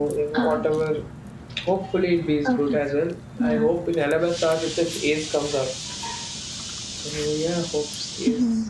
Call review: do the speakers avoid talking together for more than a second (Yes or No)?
Yes